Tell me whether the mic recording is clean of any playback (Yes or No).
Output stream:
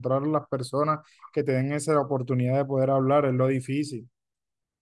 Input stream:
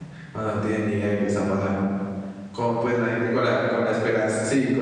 Yes